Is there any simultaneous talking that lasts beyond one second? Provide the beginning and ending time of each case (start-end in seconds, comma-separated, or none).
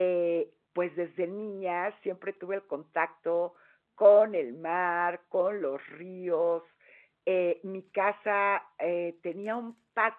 none